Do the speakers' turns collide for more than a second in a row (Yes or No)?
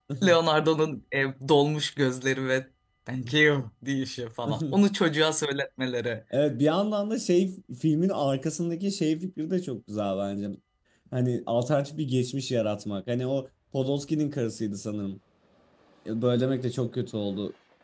No